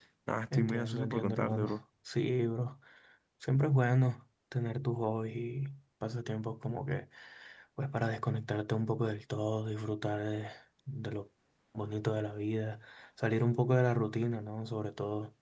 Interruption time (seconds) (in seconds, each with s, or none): 0.5 s